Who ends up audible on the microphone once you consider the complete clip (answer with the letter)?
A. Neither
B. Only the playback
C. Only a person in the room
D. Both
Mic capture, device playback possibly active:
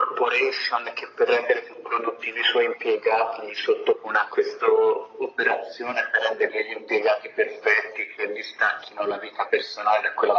B